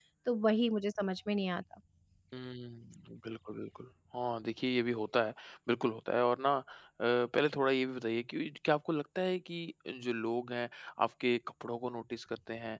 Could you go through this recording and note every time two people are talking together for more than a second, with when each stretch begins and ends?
none

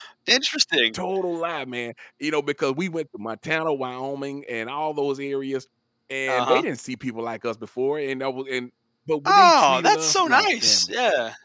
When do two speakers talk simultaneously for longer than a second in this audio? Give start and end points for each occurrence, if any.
9.2-10.9

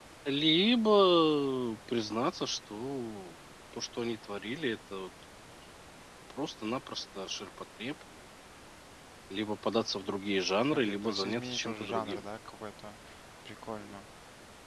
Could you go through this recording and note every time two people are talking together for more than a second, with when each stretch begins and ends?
10.7-12.3

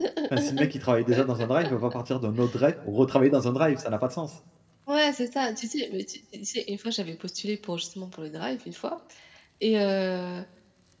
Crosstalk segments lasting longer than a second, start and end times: none

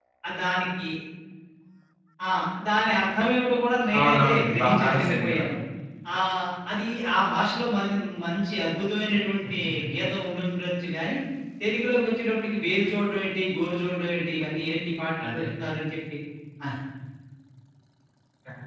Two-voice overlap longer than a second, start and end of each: 4.0-5.4

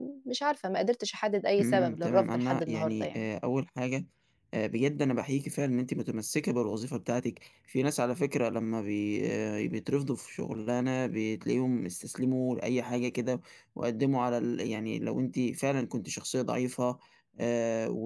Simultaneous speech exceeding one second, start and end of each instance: 1.6-3.3

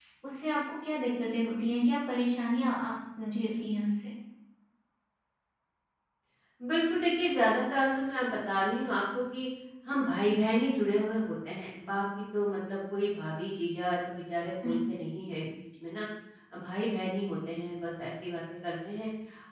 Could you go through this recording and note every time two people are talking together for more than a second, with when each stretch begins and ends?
none

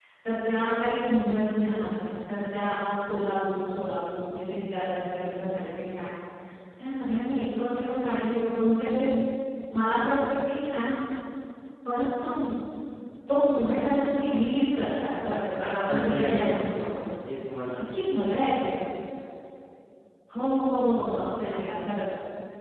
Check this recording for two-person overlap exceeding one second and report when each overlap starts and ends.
15.6-17.1

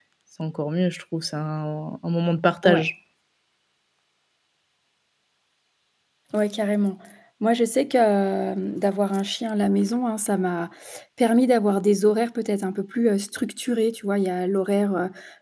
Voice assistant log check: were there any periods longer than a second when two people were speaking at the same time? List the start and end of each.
none

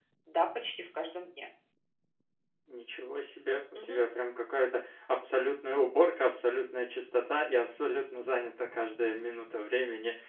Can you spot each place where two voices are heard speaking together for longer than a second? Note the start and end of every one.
none

